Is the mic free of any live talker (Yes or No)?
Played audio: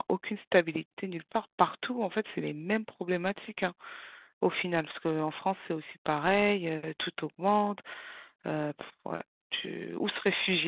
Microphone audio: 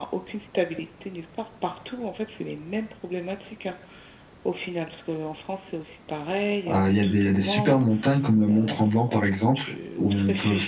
No